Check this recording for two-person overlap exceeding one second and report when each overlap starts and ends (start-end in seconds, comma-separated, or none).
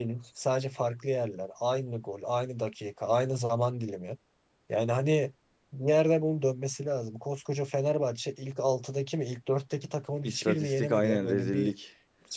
10.2-11.7